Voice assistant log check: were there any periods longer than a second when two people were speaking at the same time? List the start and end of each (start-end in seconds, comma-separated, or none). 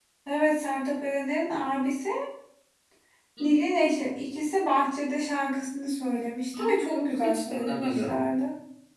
6.6-8.2